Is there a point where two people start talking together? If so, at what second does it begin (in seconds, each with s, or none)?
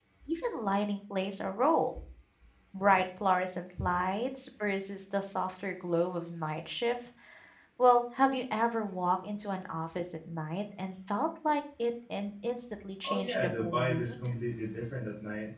13.0 s